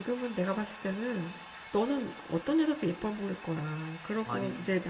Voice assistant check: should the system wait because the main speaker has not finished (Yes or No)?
Yes